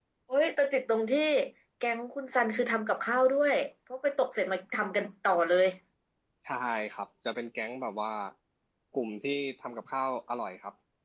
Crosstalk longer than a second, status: none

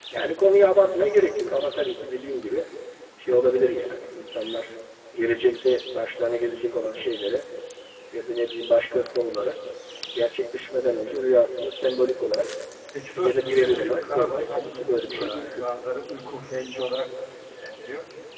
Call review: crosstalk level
present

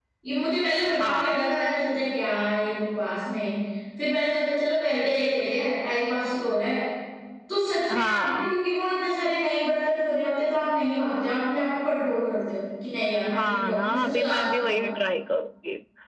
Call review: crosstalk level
present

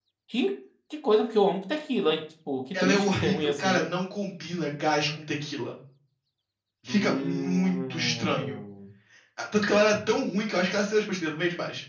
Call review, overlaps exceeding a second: present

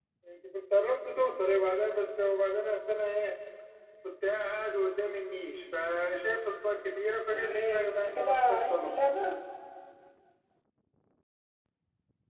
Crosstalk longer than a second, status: present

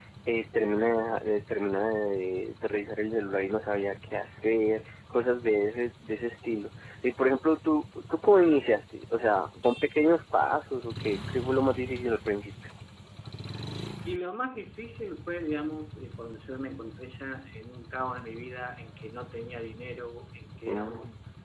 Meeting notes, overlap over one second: none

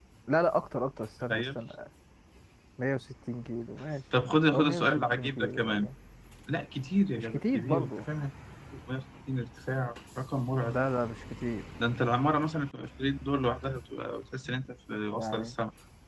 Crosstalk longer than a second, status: present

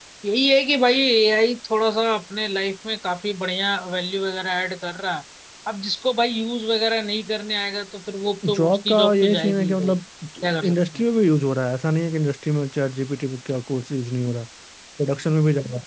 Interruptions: present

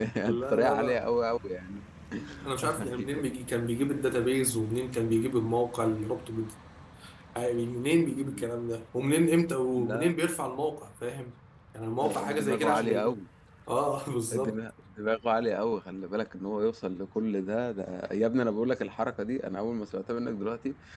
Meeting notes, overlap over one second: present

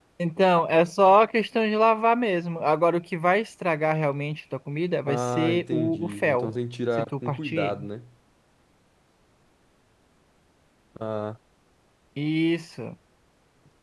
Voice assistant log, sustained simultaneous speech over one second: present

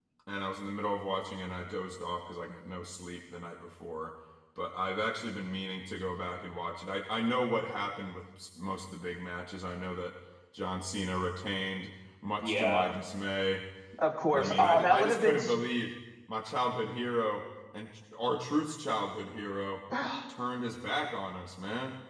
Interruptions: present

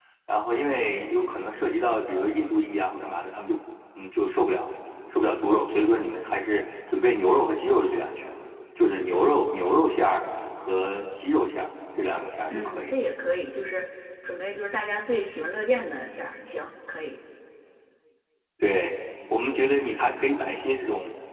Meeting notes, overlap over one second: none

